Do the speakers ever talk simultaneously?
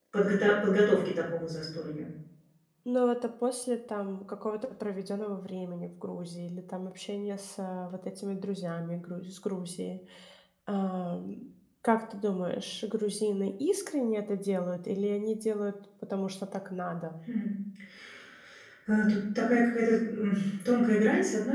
No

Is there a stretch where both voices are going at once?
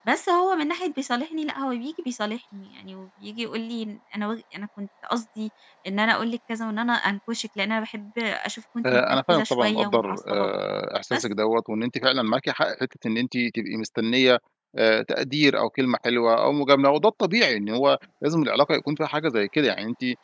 Yes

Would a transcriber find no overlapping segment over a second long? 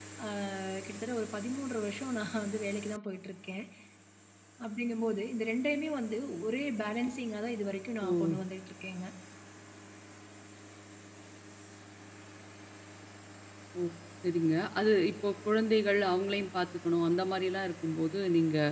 Yes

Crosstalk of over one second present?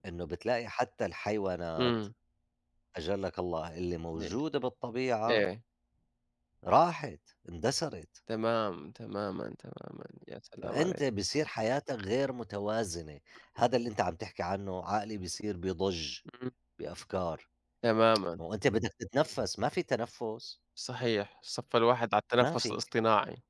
No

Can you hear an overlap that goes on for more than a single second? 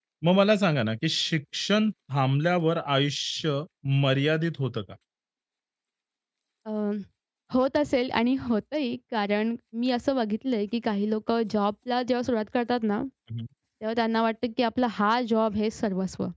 No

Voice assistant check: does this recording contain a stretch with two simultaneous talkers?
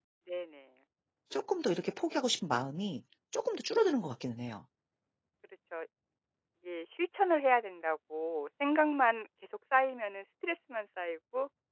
No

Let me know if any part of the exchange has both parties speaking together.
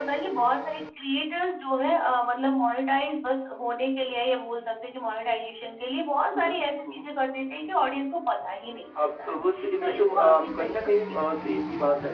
Yes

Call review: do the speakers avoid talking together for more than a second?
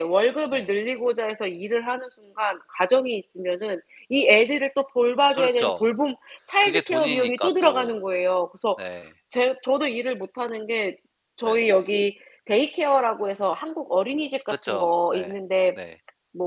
No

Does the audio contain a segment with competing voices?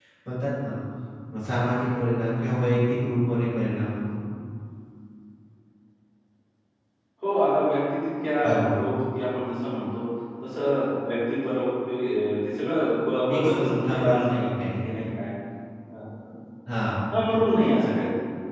Yes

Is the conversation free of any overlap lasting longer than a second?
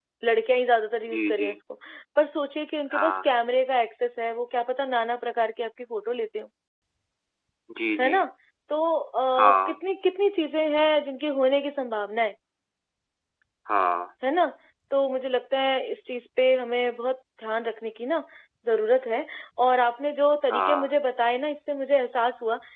Yes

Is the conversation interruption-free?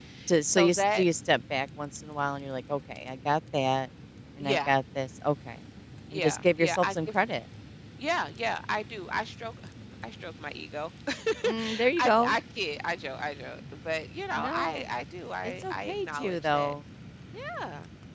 No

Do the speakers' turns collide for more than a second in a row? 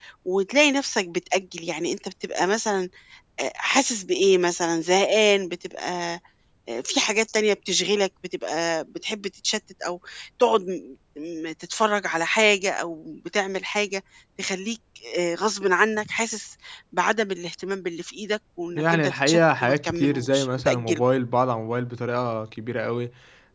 Yes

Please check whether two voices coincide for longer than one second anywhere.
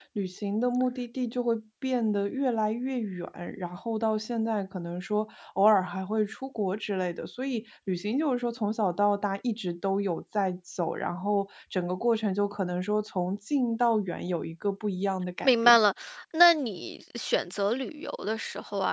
No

